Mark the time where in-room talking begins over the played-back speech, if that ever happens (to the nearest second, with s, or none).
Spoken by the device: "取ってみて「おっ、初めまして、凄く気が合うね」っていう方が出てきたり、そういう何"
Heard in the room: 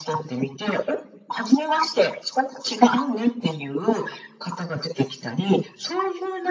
none